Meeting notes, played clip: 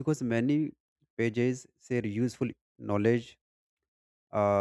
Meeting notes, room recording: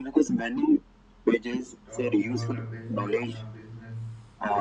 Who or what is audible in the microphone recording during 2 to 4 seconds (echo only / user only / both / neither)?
both